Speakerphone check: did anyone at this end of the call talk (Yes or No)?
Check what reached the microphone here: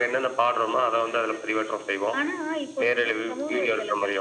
No